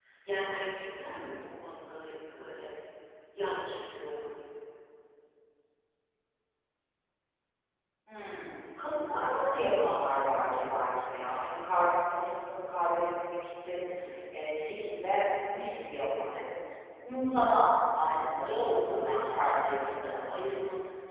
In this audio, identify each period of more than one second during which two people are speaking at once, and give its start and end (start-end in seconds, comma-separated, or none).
18.0-20.4